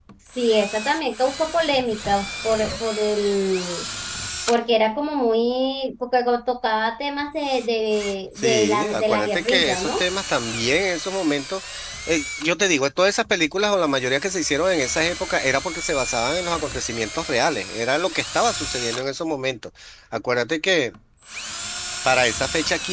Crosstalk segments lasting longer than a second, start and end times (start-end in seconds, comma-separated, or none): 8.4-10.0